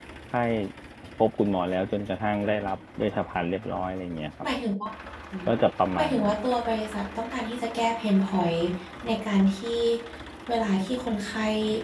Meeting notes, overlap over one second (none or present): none